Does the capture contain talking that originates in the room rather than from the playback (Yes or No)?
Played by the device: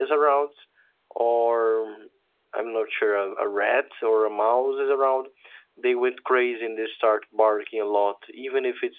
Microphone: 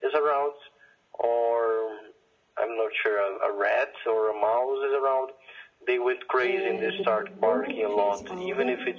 Yes